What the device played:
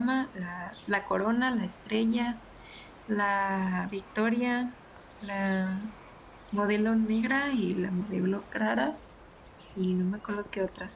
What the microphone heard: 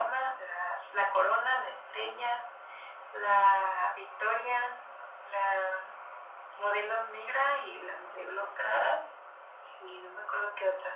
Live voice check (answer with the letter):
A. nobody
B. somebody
A